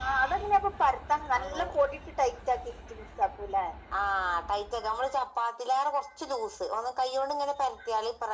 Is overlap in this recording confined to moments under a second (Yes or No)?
Yes